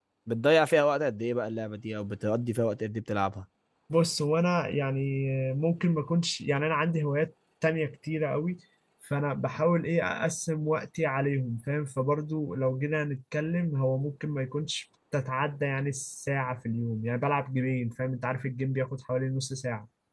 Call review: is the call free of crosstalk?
Yes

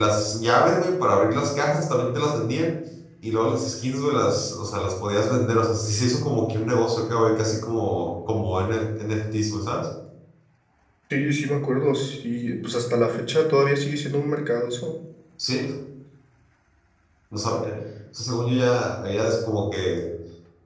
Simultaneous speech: No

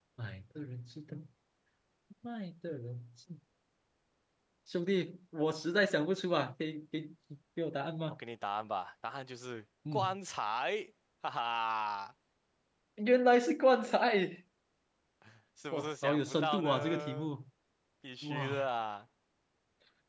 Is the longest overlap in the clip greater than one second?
Yes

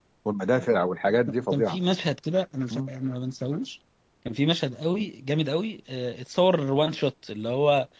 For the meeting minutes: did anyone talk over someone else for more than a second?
No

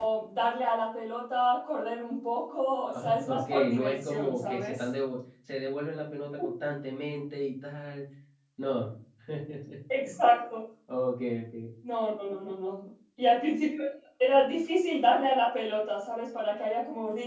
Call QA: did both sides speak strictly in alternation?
No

